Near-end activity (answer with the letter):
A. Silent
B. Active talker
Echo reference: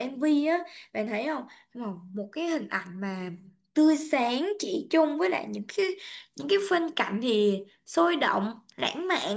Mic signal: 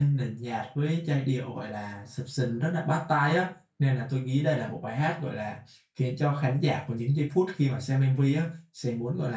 B